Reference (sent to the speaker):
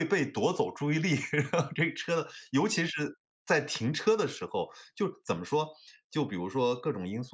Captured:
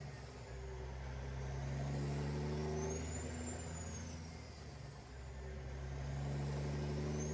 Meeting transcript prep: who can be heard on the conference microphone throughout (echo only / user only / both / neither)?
neither